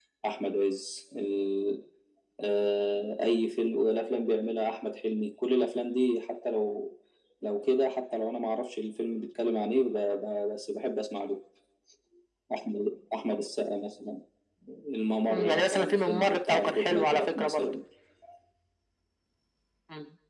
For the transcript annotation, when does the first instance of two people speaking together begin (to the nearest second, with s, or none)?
15 s